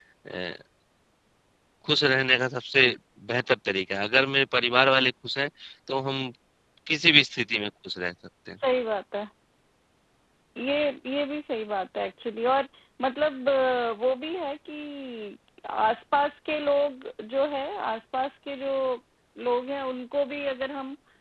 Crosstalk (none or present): none